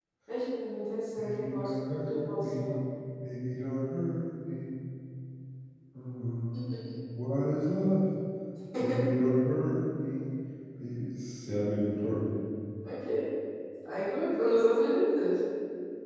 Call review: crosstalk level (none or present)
present